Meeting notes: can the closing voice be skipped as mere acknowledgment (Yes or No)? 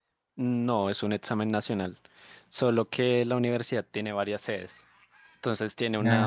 Yes